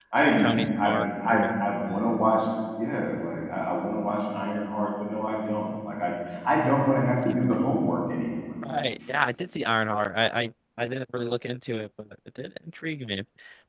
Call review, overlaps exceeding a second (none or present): present